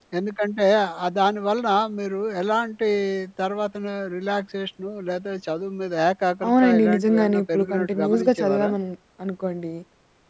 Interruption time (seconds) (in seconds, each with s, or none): 6.4 s